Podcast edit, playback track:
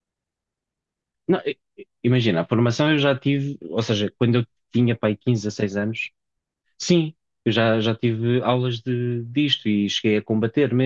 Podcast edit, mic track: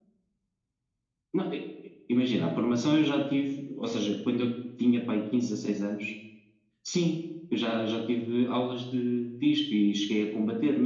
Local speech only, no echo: none

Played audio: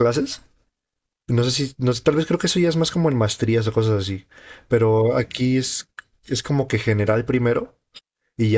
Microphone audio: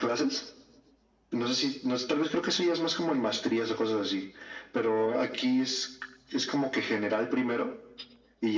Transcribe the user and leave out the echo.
none

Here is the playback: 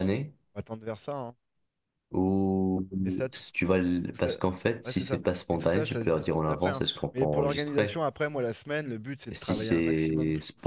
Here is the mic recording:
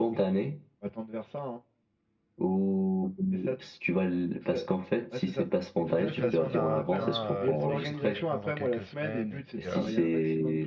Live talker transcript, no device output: Mais de toute façon, on a atteint euh, le seuil critique, je pense, dans quelques semaines, et puis euh,

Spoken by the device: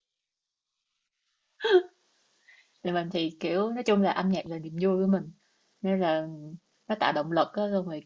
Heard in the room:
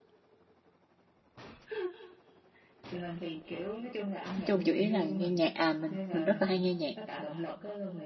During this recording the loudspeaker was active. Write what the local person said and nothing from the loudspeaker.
nói chung chủ yếu là nghe nhạc à mình mình rất là hay nghe nhạc

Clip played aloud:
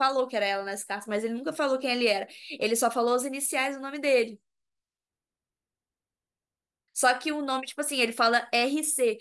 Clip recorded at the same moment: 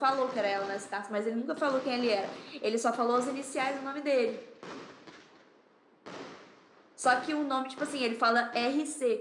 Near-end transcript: none

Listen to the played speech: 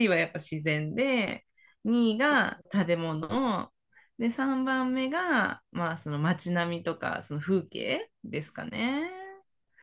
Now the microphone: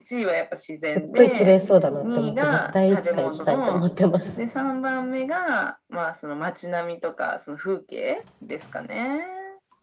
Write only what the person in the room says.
すっごい綺麗そうだなって思って、絶対いつか行きたいと思ってます。

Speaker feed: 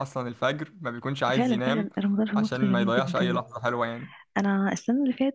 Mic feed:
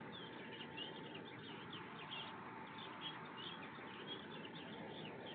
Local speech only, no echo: none

